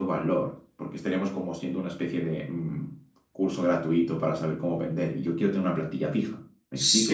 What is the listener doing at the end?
taking over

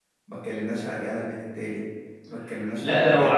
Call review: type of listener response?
taking over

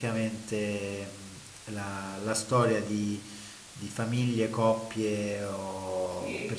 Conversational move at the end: listening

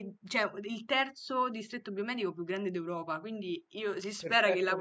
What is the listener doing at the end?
listening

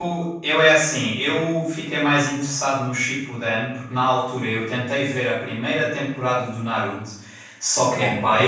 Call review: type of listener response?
listening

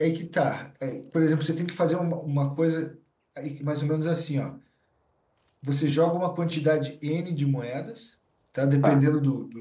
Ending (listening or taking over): listening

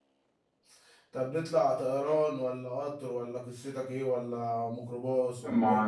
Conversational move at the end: taking over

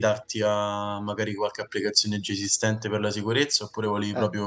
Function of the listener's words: taking over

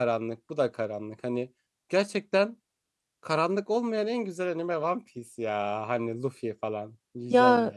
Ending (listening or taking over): taking over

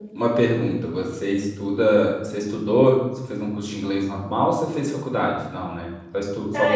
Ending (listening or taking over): taking over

